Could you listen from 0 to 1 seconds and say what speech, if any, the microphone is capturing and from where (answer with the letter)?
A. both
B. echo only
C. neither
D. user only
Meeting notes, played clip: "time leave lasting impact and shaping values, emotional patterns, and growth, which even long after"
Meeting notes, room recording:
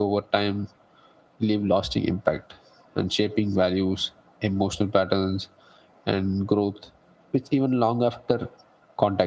B